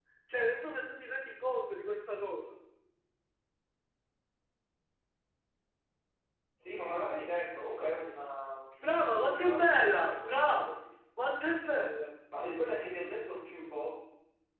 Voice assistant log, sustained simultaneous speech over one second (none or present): present